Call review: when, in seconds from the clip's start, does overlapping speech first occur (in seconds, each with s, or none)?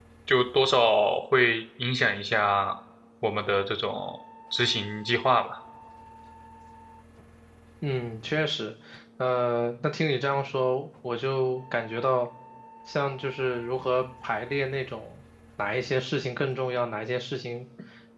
none